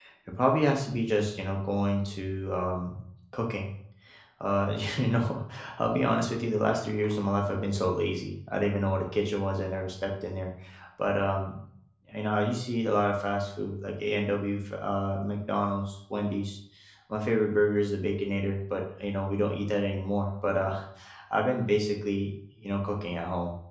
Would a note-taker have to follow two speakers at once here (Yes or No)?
No